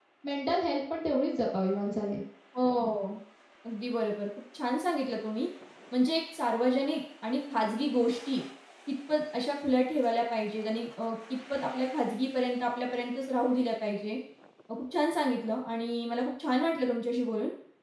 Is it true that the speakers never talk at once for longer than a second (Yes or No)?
Yes